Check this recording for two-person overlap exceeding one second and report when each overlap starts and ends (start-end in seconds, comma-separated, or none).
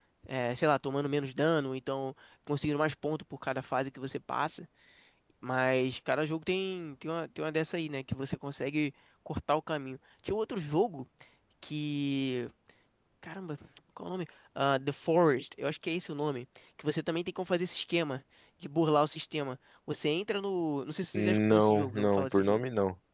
21.1-22.6